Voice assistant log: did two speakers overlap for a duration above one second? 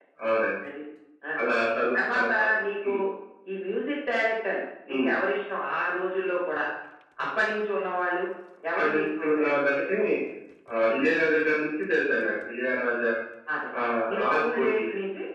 Yes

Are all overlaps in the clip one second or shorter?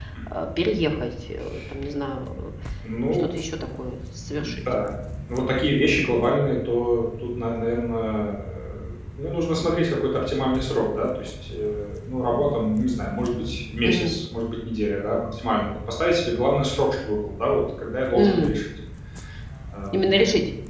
Yes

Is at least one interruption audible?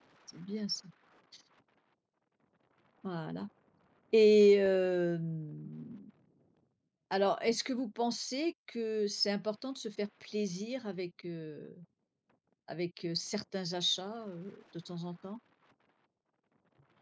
No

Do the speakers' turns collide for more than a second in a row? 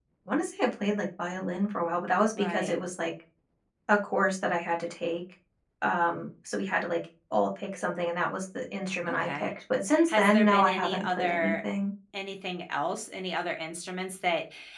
Yes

